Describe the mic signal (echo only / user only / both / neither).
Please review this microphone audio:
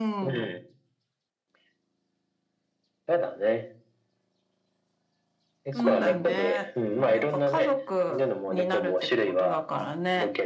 both